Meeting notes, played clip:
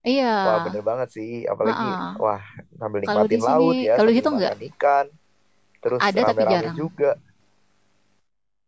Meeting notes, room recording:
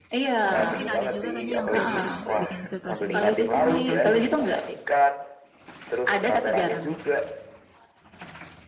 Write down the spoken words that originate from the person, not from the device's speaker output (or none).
Atau mungkin ada juga kayaknya yang filter, bikin filter sendiri, kurang tahu juga.